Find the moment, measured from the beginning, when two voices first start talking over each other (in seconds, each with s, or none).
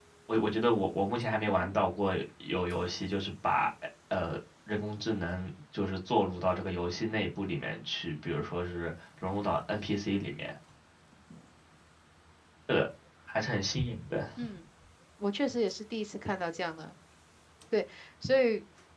none